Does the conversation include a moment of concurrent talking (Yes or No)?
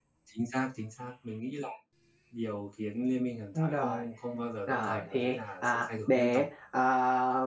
Yes